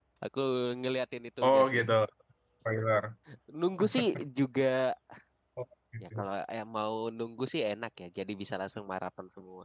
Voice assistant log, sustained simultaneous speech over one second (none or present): none